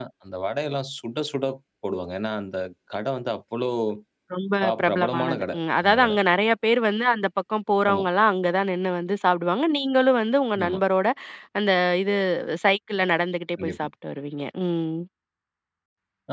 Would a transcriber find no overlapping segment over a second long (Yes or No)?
No